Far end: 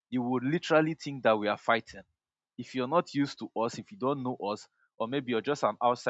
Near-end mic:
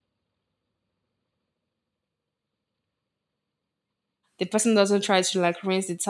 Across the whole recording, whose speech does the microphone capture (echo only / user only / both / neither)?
user only